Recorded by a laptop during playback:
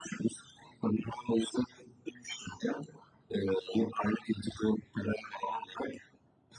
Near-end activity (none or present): none